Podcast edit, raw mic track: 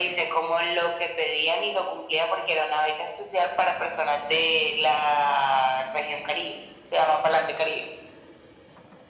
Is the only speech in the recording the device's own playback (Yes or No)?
Yes